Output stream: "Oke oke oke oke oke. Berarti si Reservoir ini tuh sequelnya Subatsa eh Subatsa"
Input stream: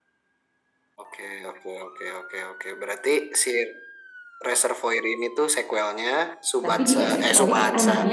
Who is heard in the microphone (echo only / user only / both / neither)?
both